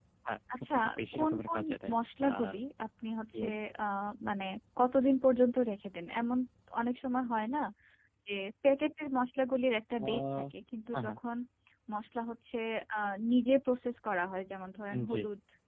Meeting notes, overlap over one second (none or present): present